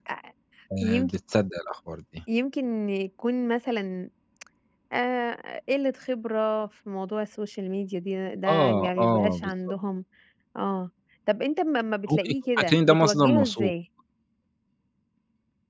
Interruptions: present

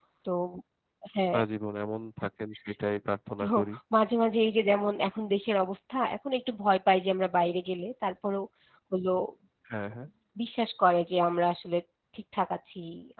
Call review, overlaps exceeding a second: none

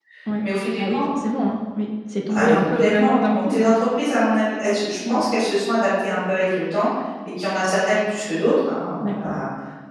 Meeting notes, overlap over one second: present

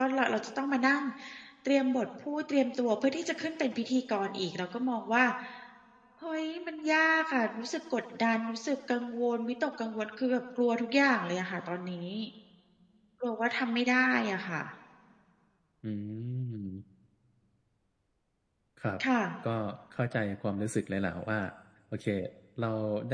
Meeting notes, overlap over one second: none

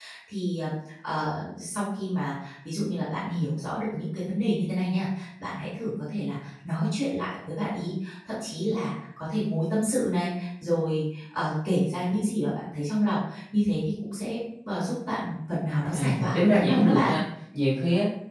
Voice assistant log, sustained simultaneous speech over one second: present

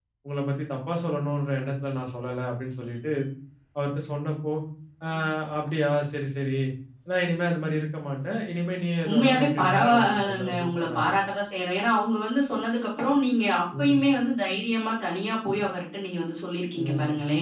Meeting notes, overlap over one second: present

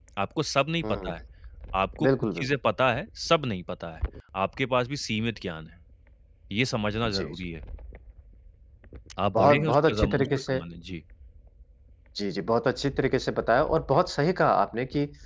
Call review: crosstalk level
present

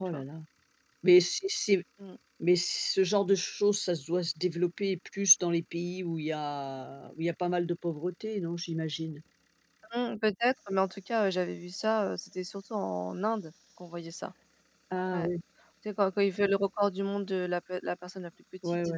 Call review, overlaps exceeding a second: none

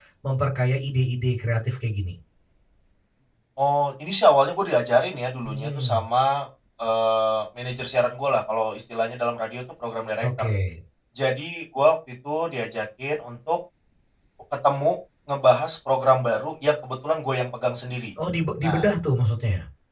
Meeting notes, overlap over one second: none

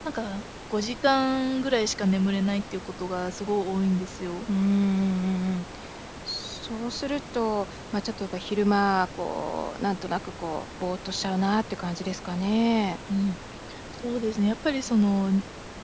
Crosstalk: none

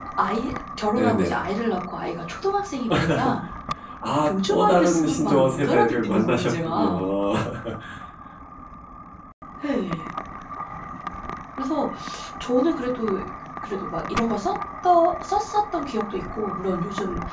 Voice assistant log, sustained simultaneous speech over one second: present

